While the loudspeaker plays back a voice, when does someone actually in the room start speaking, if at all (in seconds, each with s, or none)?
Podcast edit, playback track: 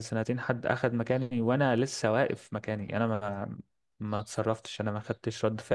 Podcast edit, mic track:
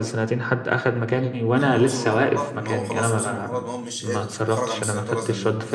1.6 s